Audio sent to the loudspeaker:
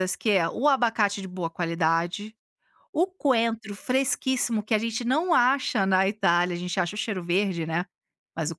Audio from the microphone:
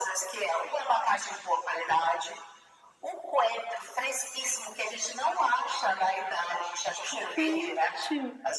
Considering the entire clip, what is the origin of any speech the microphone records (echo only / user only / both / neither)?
both